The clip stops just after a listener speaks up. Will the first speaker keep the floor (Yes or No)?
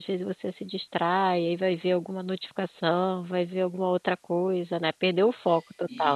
No